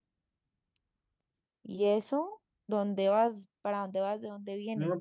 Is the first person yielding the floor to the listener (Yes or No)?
Yes